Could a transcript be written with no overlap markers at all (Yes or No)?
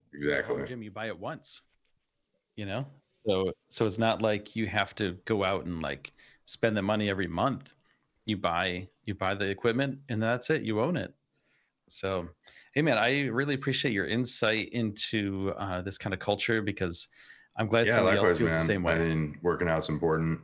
No